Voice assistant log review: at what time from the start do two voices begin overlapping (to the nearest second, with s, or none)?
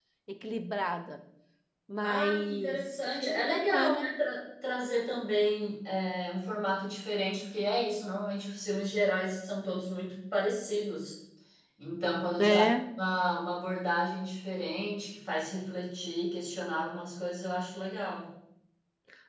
2 s